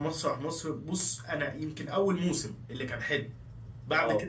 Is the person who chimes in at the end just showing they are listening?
Yes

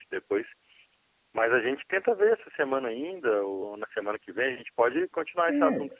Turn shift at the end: Yes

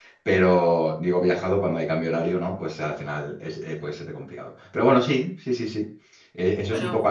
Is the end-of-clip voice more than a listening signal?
No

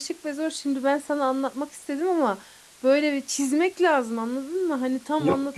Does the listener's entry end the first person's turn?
Yes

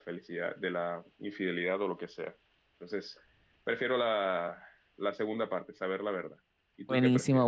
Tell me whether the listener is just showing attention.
No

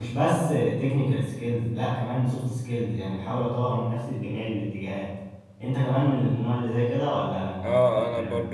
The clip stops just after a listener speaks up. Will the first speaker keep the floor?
No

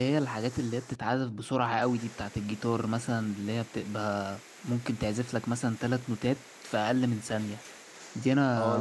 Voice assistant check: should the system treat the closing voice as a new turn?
Yes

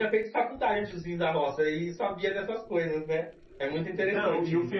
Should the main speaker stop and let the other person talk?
Yes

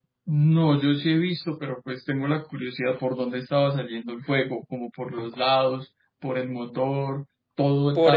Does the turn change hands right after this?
Yes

